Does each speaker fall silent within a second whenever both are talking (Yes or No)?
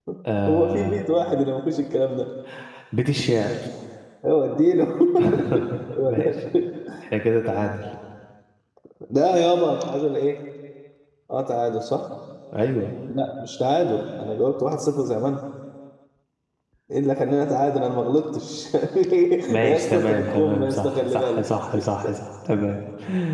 No